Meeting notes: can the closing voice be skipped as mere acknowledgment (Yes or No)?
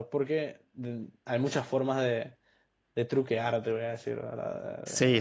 No